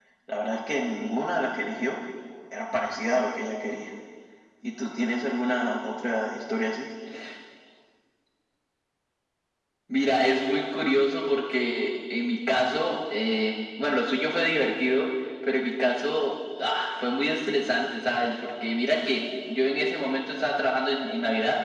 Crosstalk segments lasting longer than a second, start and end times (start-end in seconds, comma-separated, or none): none